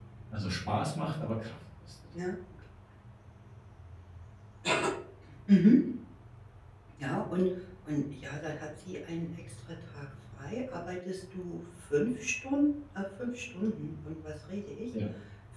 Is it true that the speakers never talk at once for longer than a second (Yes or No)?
Yes